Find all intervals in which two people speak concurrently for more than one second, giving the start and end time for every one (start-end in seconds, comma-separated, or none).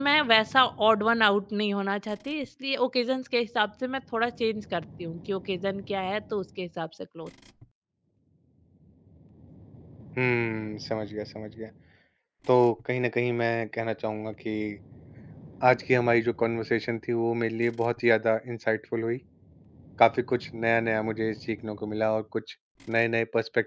none